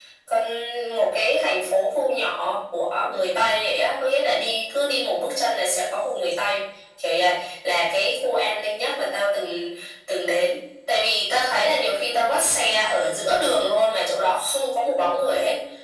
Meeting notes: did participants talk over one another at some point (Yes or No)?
No